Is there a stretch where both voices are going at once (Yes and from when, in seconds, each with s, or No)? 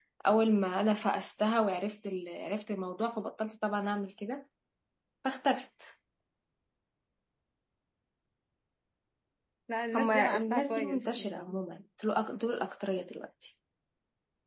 Yes, from 9.9 s